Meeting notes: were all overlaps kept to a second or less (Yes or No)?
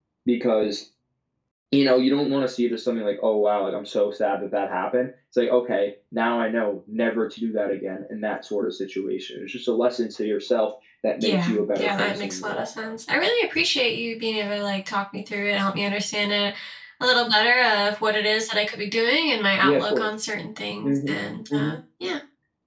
No